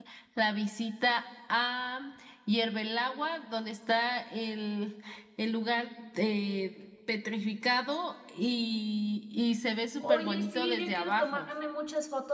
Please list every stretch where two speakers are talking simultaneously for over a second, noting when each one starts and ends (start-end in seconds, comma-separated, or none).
10.0-11.5